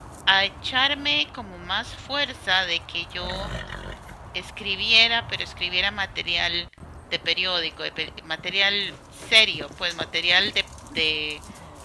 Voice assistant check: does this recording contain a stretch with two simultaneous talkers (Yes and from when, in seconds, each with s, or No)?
No